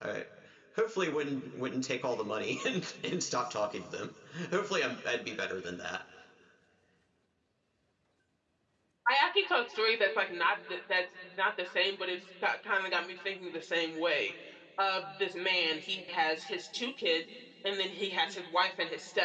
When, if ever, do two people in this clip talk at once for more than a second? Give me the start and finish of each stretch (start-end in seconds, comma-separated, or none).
none